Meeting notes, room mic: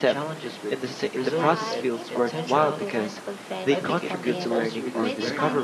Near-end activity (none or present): present